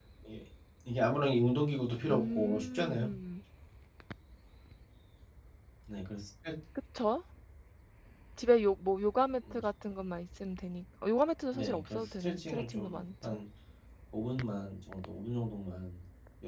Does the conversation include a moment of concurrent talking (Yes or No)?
Yes